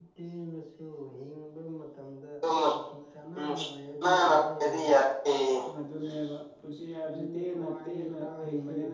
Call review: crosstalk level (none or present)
present